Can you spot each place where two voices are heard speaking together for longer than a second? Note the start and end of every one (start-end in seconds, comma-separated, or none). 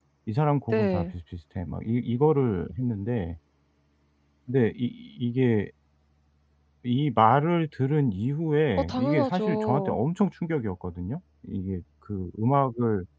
8.8-10.0